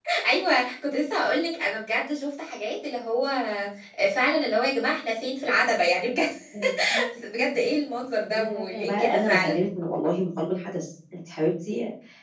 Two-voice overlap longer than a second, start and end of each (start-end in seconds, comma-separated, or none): 8.3-9.6